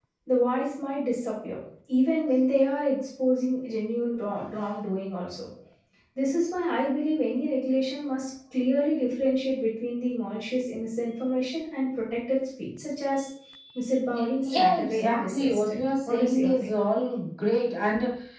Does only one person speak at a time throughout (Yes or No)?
No